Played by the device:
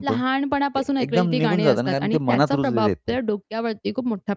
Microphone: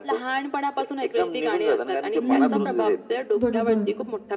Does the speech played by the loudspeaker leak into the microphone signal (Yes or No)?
Yes